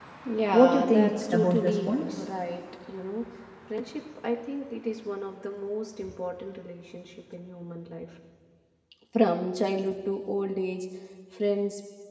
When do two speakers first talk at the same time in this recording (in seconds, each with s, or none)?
0.5 s